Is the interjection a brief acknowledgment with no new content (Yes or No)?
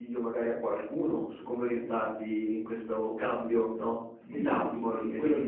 No